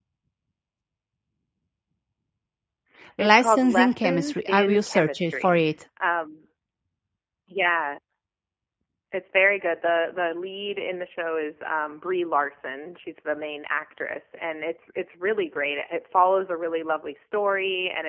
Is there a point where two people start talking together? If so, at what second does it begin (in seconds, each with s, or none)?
3.2 s